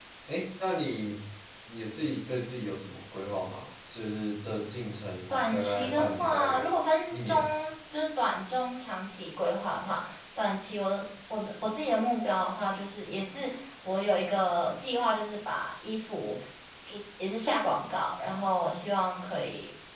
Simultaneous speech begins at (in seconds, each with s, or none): 5.3 s